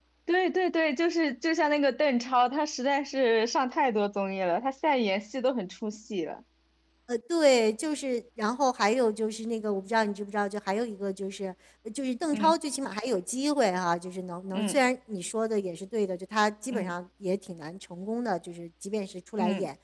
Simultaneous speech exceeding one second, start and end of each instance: none

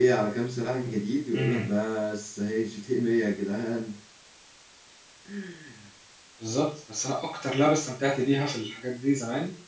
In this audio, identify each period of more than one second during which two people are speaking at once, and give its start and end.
none

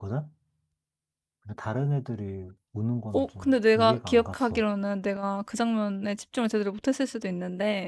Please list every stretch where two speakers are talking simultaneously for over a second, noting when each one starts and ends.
3.1-4.6

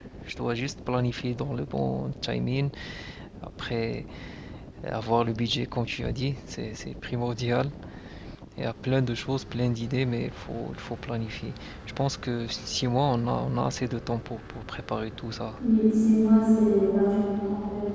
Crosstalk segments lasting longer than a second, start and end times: none

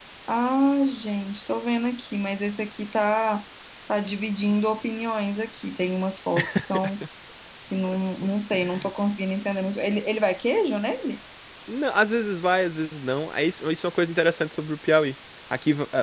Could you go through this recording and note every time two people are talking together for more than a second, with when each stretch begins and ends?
none

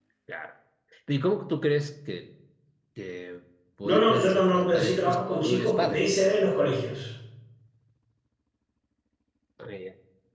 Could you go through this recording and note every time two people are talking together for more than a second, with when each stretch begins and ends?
3.8-6.1

